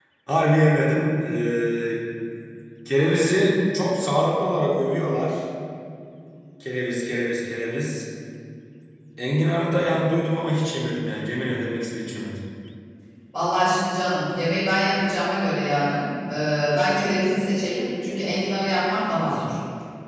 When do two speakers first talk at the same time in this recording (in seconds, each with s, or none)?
none